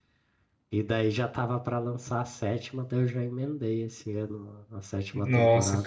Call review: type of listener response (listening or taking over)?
taking over